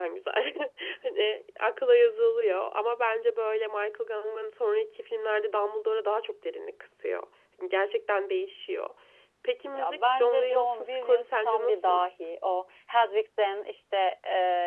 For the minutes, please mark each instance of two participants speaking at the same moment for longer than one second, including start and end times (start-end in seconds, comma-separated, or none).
9.7-12.0